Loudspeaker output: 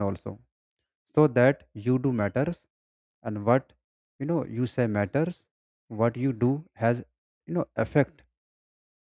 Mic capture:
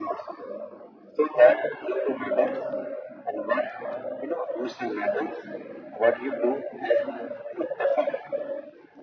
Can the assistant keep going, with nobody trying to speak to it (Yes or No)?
Yes